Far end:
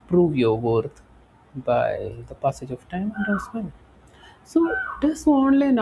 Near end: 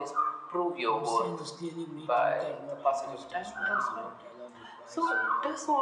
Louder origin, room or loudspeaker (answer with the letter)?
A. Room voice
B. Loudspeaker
B